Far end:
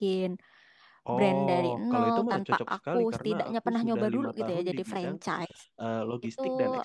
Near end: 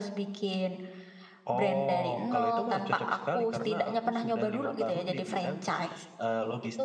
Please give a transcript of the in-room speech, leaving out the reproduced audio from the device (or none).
none